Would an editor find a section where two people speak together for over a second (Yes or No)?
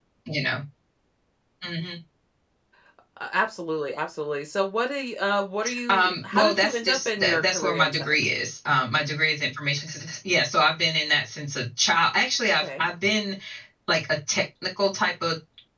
Yes